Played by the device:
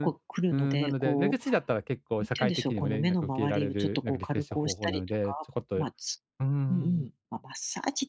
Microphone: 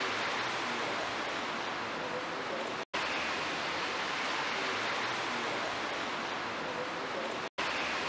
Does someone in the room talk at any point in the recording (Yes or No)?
No